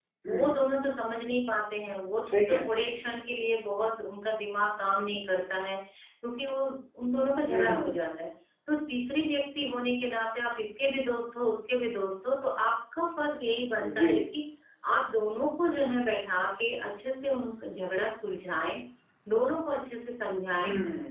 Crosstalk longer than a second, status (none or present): none